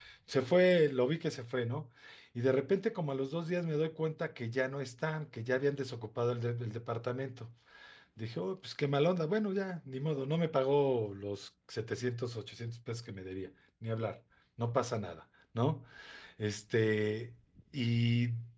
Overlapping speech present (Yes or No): No